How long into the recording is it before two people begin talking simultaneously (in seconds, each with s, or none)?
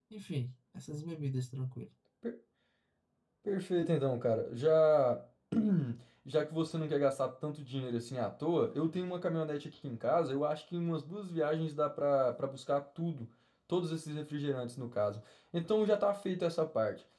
none